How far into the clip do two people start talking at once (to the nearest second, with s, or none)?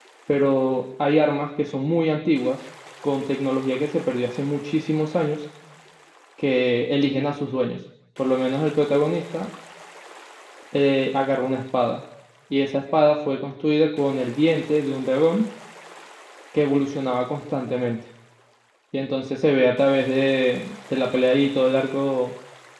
none